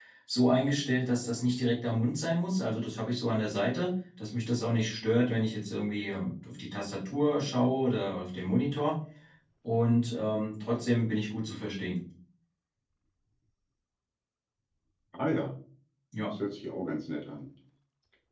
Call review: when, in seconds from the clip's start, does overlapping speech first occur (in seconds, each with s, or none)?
none